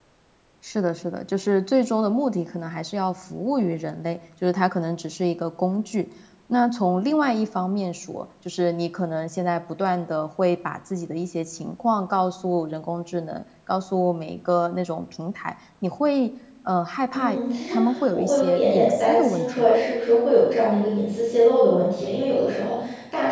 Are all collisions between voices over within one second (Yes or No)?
No